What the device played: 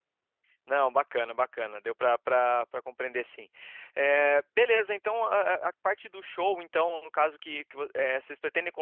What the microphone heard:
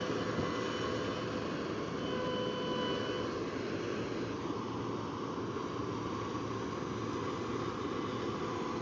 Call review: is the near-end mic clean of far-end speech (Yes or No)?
Yes